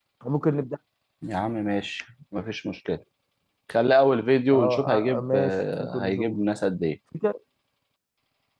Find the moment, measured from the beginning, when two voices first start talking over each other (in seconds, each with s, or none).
4.5 s